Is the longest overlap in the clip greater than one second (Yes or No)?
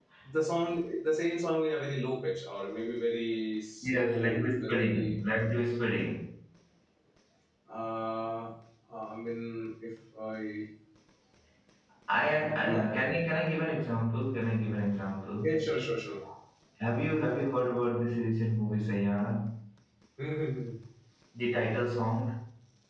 Yes